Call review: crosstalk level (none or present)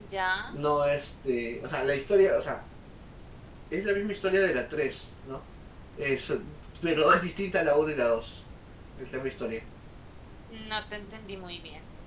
none